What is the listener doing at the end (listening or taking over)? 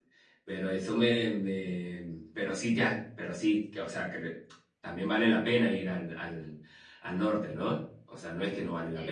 taking over